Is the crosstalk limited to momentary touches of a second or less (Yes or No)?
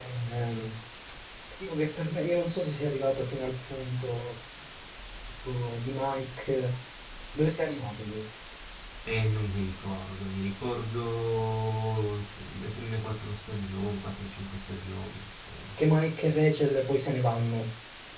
Yes